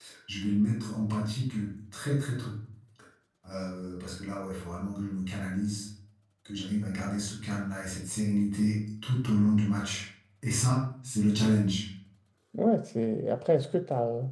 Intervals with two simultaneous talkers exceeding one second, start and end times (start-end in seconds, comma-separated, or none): none